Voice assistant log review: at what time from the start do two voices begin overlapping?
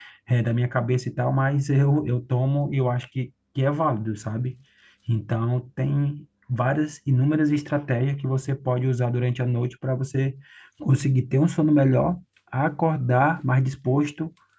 none

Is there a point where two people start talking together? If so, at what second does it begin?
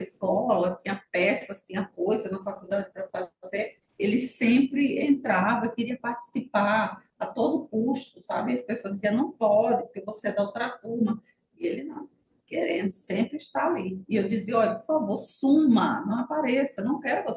none

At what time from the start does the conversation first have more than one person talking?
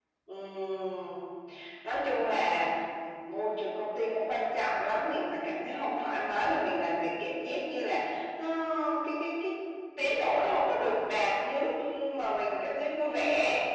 none

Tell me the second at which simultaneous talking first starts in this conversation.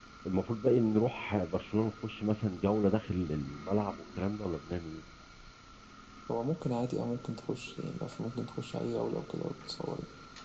none

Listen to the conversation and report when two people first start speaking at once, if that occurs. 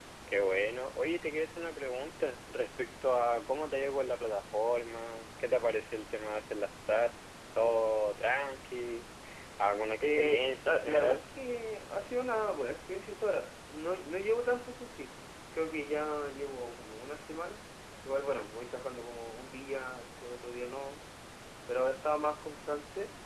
10.0 s

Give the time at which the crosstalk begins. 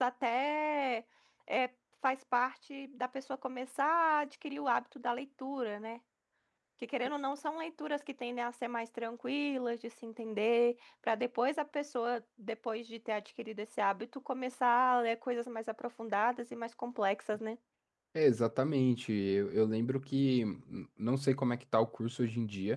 none

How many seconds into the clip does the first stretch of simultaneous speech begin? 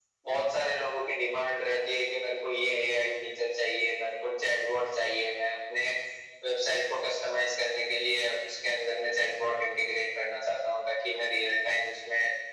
none

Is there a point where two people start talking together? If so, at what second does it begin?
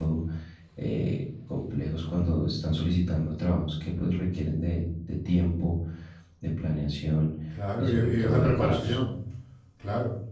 7.8 s

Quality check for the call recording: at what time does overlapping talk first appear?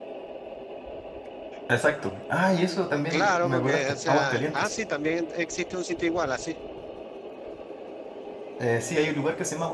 3.1 s

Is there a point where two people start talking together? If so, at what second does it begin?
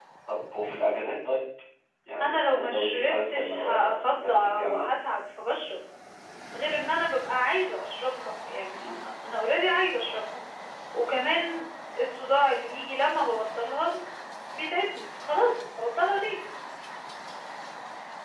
2.2 s

